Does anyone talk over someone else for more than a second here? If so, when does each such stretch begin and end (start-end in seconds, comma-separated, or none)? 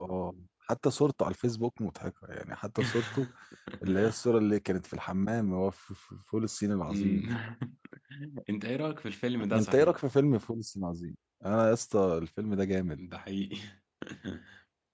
none